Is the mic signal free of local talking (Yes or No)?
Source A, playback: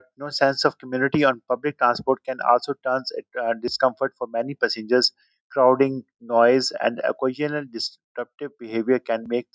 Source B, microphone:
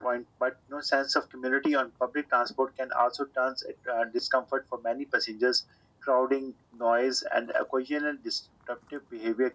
Yes